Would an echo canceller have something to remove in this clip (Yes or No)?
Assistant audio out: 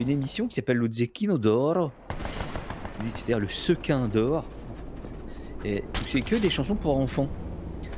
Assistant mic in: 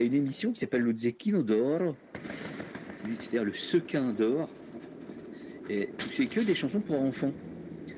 Yes